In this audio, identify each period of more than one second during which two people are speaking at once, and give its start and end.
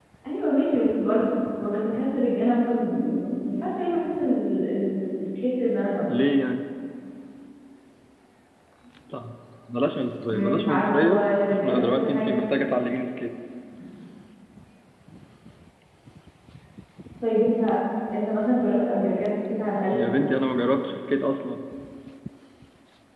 10.3-12.4

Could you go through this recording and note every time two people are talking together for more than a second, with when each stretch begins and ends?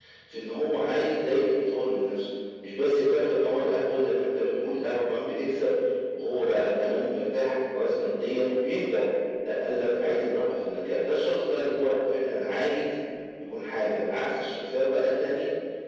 none

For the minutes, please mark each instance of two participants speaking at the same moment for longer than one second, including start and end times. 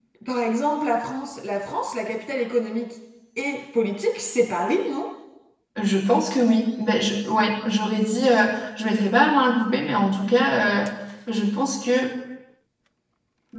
none

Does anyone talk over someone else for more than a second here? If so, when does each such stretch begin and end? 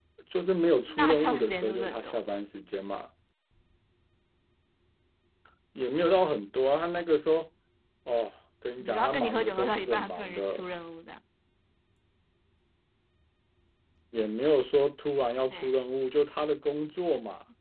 1.0-2.2, 8.8-10.7

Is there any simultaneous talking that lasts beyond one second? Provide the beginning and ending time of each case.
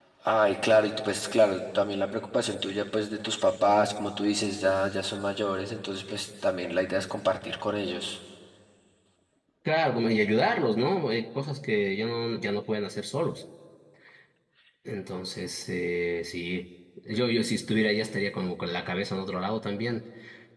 none

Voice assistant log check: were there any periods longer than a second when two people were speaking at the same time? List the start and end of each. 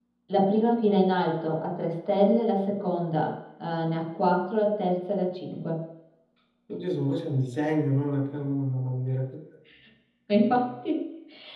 none

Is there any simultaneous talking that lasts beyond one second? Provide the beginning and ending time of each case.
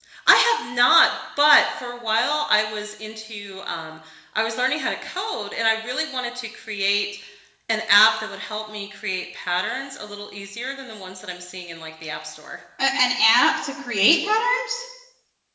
none

